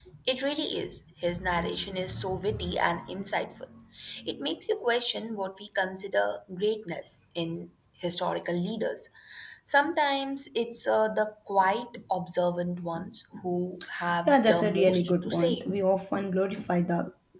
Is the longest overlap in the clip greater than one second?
Yes, from 14.3 s

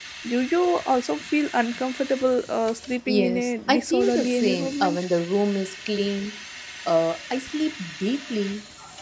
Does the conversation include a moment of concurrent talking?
Yes, from 3.1 s

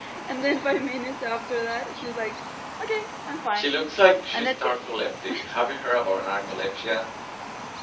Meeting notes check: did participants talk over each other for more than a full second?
No

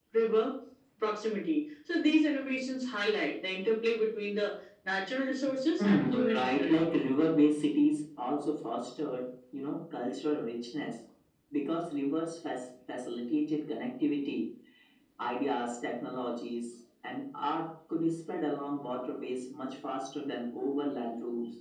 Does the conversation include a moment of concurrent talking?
Yes, from 5.8 s

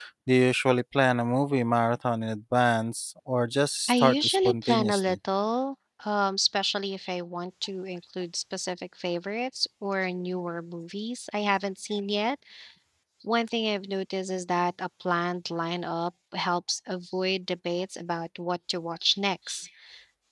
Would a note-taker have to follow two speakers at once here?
Yes, from 3.9 s

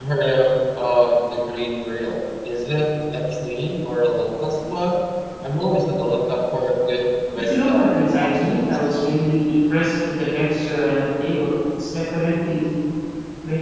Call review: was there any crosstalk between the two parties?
Yes, from 7.4 s

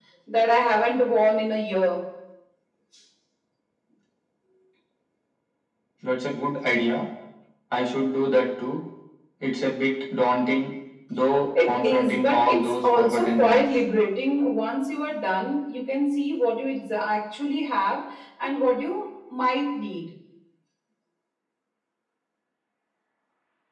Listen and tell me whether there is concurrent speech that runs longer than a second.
Yes, from 11.6 s

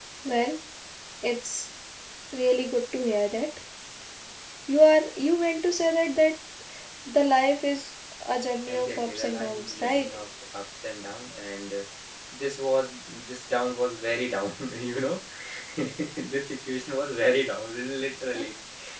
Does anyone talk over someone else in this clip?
Yes, from 8.7 s

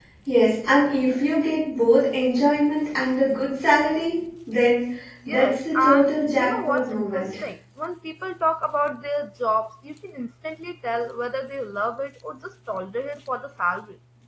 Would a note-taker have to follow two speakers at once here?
Yes, from 5.3 s

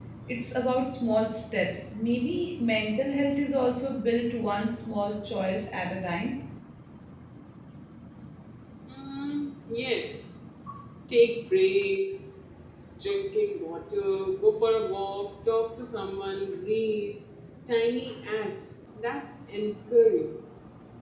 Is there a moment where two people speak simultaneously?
No

